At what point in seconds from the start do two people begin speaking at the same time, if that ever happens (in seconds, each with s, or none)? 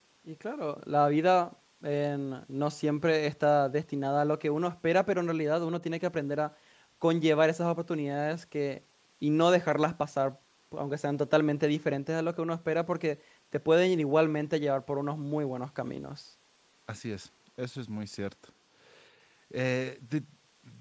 none